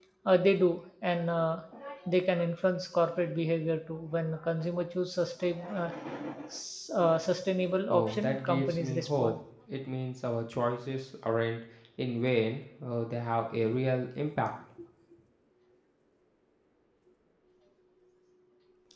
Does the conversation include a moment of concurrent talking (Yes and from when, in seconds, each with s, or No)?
Yes, from 7.9 s